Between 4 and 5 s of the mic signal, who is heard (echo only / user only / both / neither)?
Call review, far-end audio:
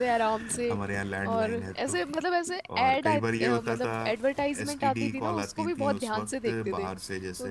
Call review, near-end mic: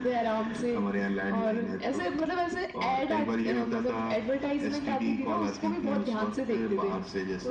echo only